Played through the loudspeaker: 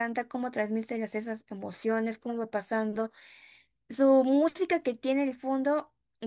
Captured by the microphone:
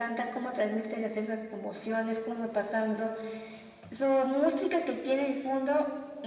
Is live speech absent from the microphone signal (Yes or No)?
Yes